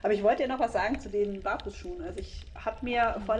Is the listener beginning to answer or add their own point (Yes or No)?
No